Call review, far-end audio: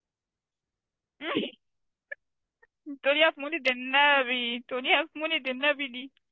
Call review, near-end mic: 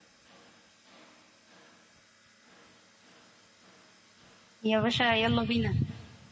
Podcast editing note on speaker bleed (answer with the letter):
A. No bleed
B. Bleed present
A